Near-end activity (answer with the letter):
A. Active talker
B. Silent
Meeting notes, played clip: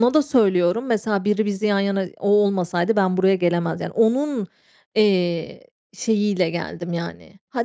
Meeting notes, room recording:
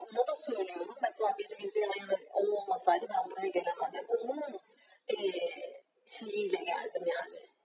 B